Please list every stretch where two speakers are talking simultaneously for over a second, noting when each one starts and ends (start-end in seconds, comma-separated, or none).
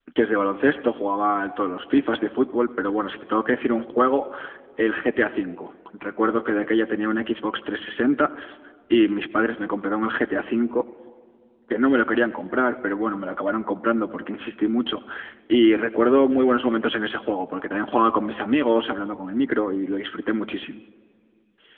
none